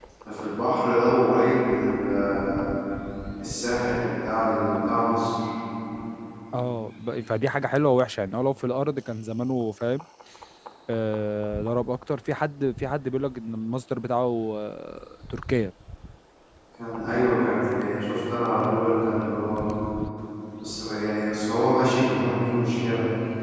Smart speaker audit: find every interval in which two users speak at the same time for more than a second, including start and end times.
none

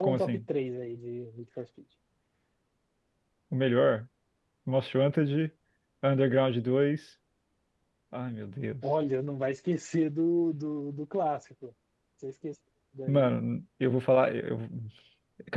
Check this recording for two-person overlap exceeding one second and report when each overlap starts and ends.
none

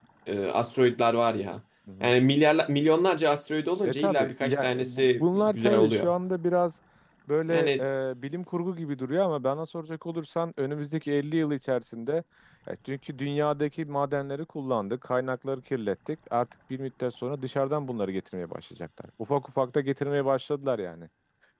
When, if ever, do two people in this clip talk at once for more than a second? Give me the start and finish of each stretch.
3.9-6.1

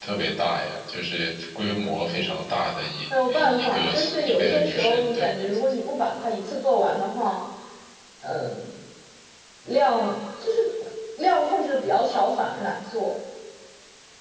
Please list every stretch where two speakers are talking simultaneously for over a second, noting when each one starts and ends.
3.3-5.3

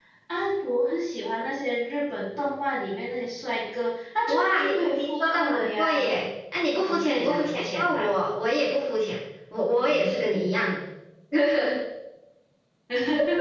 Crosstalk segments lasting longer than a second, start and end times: 4.3-6.1, 6.8-8.1

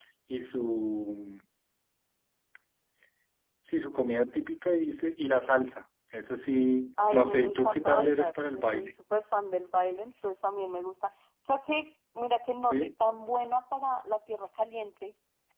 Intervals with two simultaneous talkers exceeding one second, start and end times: 7.1-9.0

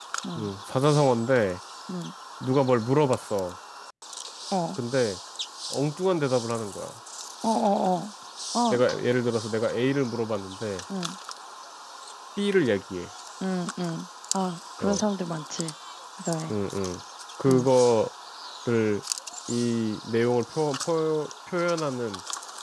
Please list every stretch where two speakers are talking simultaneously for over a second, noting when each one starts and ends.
none

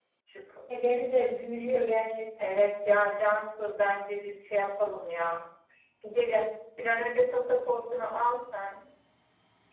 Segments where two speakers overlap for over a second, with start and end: none

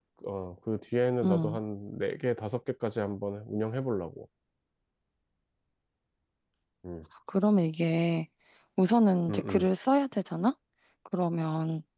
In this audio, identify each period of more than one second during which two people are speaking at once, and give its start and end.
none

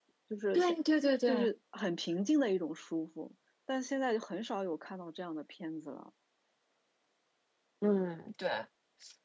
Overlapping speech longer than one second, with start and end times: none

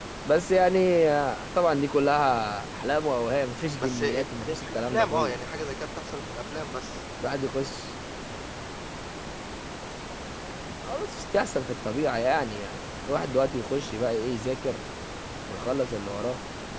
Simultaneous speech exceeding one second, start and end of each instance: 3.8-5.3

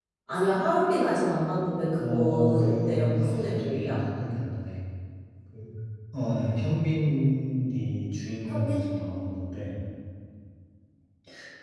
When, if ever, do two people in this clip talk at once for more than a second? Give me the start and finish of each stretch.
2.0-4.0

